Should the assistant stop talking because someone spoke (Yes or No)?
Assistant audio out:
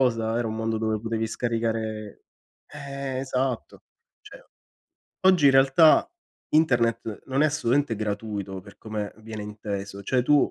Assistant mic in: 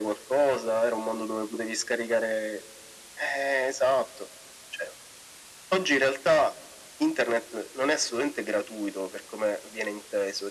No